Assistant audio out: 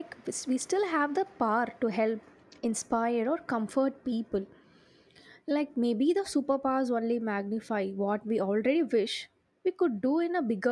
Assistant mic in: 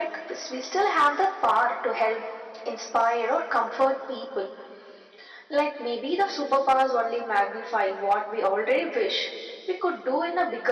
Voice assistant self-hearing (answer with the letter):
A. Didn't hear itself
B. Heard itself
B